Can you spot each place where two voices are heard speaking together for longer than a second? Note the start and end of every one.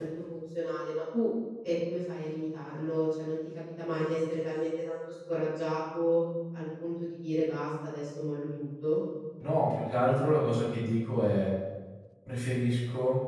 none

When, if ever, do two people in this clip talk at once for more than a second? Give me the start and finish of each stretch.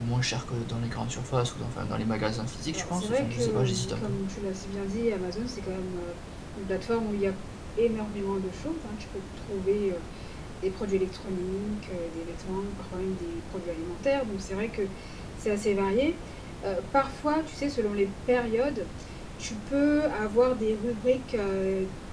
2.7-4.2

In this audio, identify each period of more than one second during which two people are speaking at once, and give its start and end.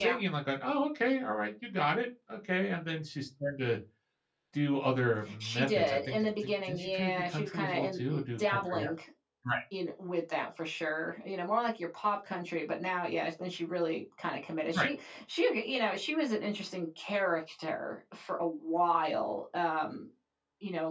5.4-8.9

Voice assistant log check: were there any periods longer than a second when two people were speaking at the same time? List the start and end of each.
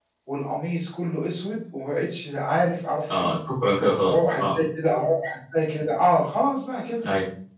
none

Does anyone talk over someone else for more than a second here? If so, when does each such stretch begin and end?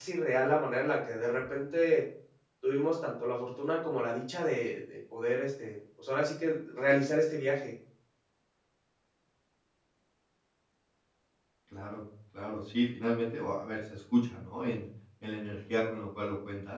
none

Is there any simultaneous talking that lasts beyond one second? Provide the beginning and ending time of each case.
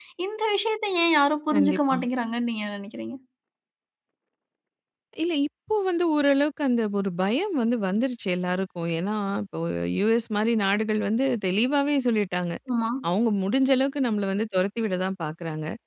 none

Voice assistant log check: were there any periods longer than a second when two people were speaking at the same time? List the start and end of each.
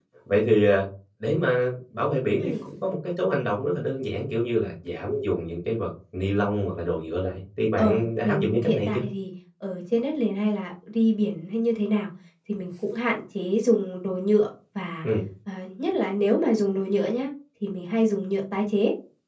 7.8-9.0

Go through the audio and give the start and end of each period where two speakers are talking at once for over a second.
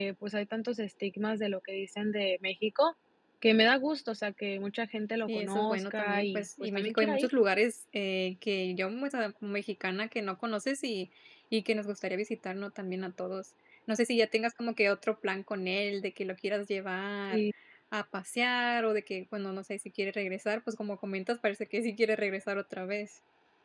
5.3-7.3

